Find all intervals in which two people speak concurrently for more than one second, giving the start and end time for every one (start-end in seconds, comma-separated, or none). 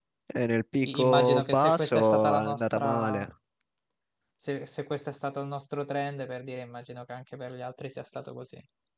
0.8-3.2